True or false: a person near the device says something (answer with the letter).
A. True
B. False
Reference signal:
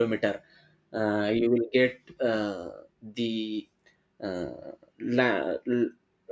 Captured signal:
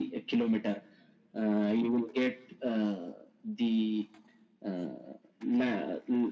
B